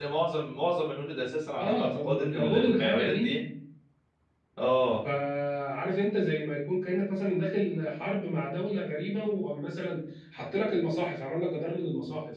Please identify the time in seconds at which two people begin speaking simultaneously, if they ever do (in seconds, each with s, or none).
1.6 s